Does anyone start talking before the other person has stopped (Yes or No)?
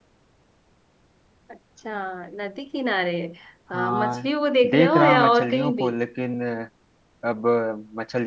Yes